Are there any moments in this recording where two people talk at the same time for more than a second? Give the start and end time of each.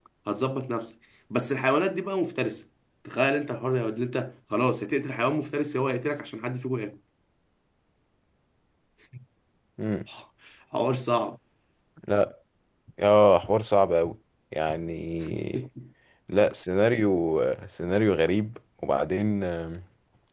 none

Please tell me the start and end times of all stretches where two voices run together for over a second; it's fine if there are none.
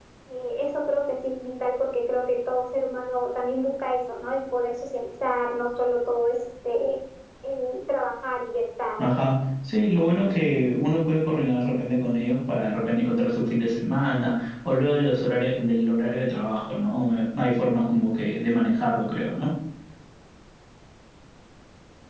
none

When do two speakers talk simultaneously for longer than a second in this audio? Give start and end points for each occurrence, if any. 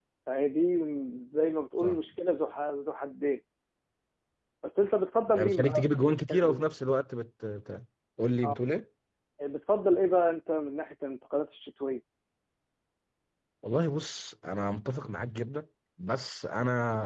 5.4-6.6

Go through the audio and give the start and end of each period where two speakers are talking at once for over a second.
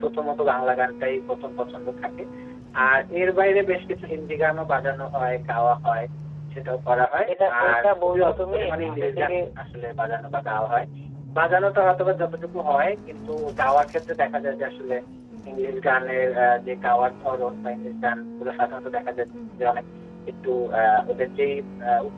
7.3-9.3

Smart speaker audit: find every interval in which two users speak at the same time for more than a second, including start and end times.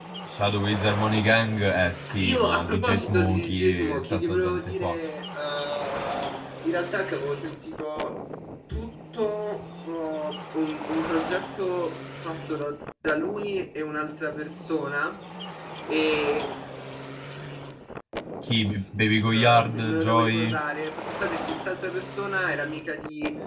2.2-4.9, 19.2-20.6

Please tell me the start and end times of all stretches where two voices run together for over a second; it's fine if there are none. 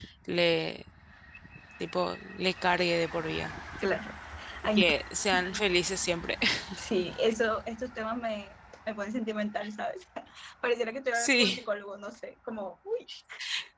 none

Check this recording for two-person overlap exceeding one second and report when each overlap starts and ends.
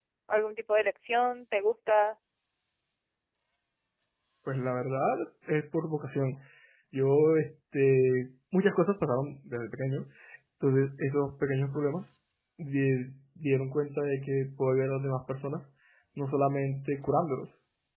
none

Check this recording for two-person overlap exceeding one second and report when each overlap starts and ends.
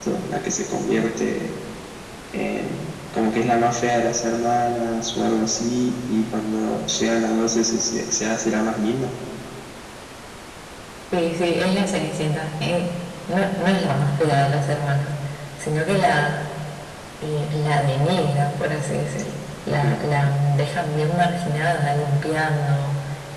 none

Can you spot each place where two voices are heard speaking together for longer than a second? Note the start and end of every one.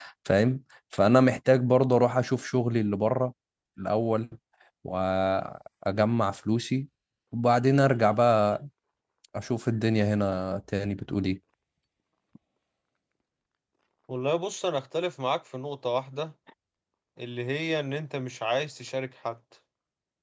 none

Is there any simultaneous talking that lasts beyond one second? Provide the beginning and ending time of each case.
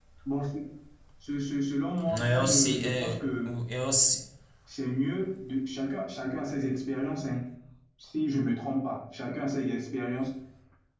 2.2-3.5

